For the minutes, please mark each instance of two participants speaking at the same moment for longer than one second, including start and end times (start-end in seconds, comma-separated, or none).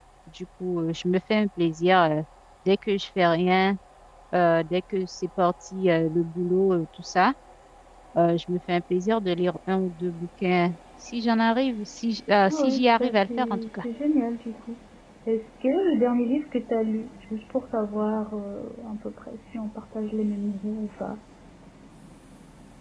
12.5-13.8